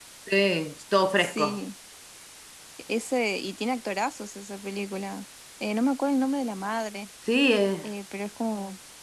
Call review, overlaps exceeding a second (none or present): none